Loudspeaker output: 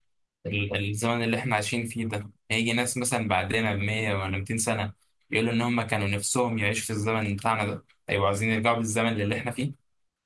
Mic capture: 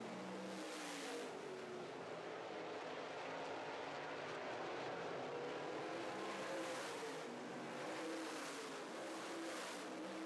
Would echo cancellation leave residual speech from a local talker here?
No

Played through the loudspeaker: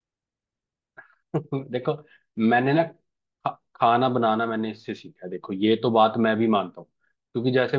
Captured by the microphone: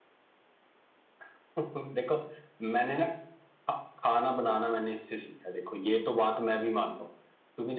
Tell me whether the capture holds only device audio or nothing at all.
Yes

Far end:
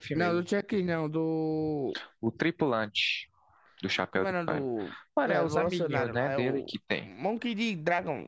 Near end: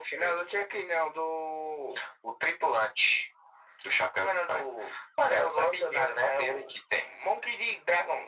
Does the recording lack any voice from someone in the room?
Yes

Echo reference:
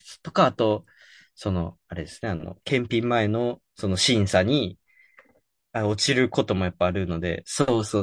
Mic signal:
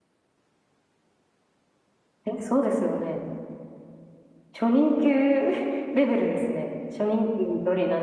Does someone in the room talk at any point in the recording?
Yes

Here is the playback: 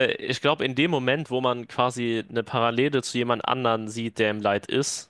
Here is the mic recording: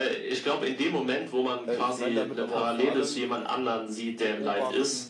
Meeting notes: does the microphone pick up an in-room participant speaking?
Yes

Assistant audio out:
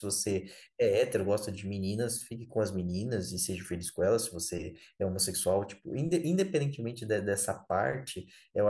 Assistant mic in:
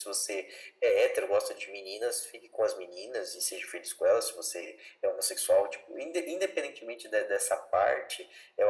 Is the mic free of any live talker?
Yes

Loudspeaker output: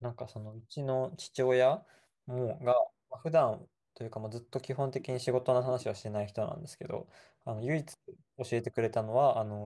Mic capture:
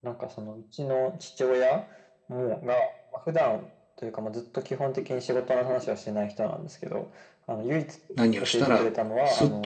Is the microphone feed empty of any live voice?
No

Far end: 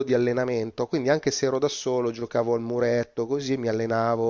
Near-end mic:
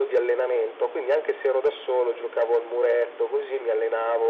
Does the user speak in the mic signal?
No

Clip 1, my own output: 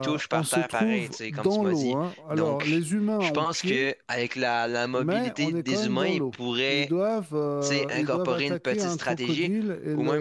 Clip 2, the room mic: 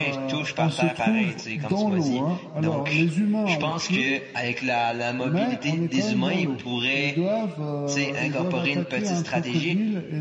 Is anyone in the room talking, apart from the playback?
No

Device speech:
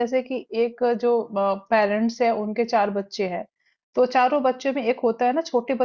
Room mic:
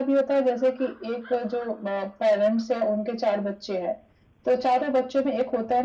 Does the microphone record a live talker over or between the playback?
No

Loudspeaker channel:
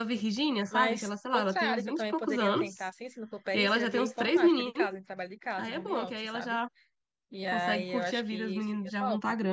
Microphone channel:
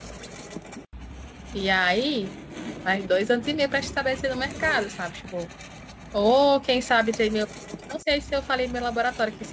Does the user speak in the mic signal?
Yes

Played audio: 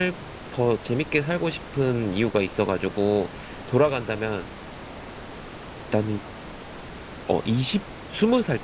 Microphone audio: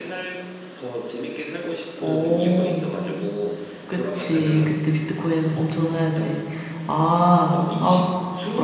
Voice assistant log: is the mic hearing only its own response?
No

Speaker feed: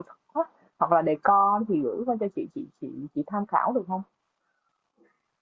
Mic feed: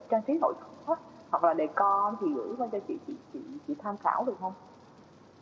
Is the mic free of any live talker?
Yes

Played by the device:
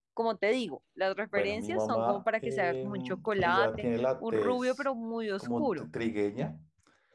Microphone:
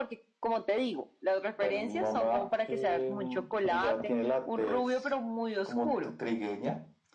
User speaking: No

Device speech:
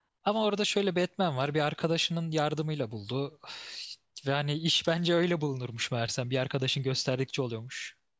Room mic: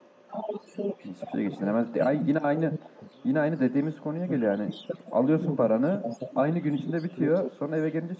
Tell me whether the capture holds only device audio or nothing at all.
No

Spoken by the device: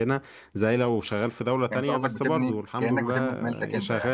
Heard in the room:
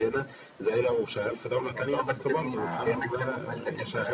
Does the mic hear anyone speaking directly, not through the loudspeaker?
Yes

